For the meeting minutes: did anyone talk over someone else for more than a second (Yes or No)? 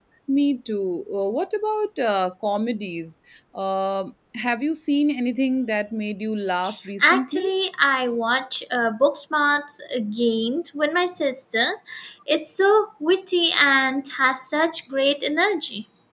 No